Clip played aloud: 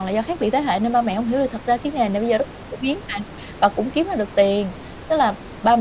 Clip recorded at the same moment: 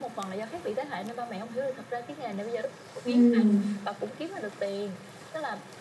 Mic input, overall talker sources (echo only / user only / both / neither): both